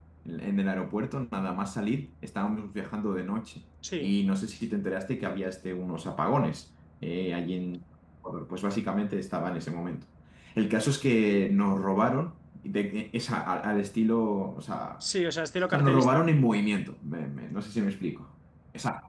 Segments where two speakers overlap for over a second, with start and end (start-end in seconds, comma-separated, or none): none